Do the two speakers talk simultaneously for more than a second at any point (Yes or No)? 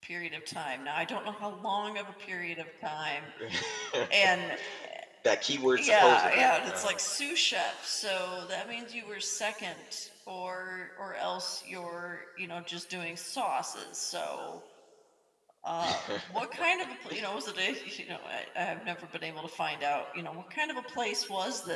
Yes